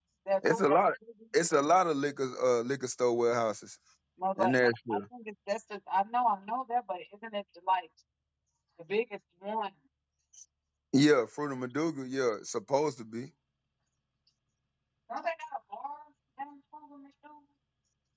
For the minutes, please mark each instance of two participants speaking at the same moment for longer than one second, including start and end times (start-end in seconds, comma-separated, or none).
none